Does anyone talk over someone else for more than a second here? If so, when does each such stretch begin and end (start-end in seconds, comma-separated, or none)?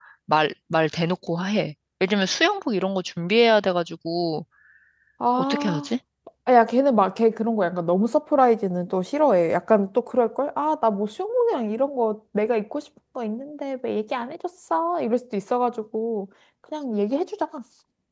none